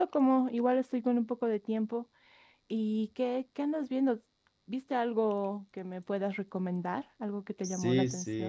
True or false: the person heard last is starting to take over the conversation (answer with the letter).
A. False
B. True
B